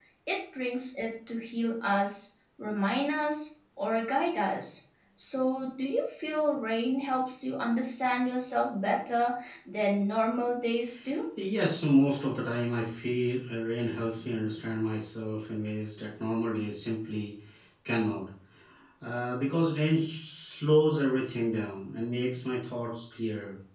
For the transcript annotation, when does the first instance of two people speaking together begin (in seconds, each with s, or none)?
none